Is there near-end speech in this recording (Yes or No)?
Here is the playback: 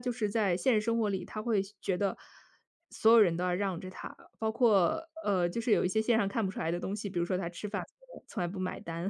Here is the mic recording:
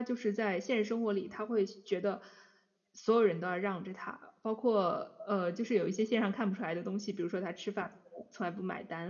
No